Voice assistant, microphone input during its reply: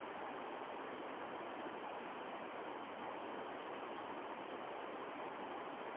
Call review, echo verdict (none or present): none